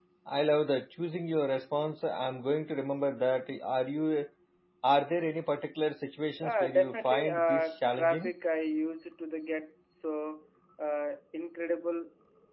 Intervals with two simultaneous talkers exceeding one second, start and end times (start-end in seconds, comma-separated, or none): 6.4-8.3